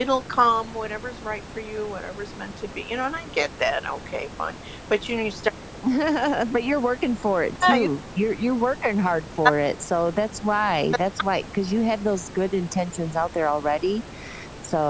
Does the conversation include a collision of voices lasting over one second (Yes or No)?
No